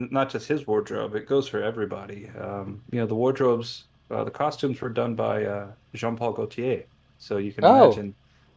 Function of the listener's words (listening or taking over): listening